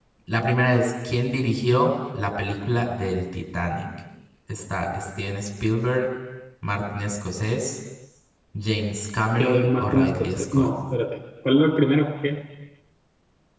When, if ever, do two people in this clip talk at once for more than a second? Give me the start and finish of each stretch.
9.3-10.7

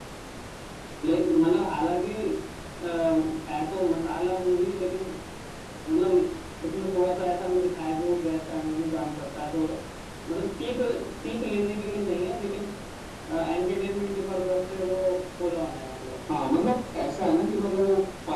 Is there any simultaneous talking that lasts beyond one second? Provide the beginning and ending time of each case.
none

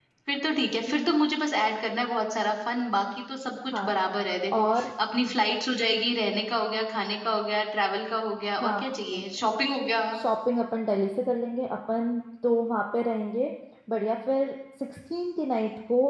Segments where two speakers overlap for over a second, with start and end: none

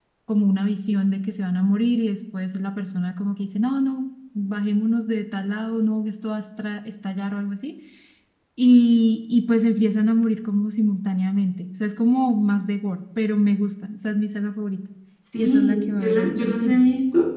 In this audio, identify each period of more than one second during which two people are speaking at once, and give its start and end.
15.4-16.8

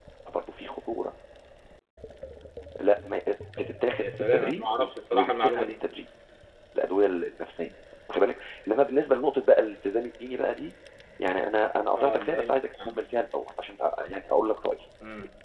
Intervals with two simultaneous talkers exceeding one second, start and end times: 4.0-5.8, 12.0-13.2

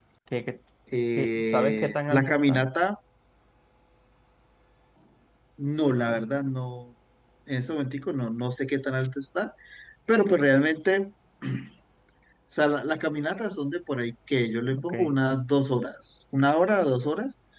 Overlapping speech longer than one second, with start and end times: 1.2-2.6

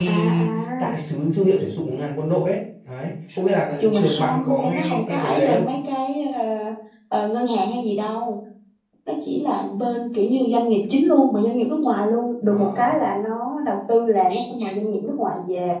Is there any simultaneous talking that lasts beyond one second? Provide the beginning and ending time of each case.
3.8-5.7

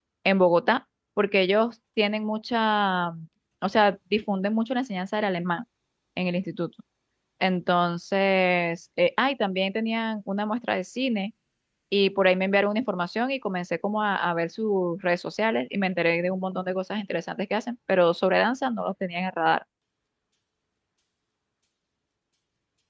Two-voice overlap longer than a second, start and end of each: none

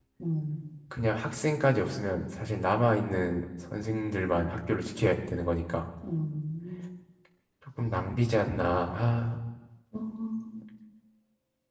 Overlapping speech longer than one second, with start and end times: none

